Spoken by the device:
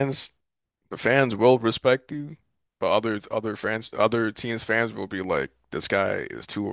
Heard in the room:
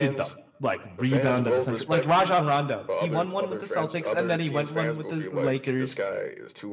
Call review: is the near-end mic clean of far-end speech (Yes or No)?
No